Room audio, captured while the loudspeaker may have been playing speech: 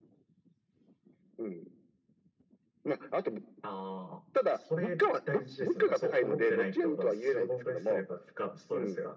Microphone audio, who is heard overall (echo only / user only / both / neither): echo only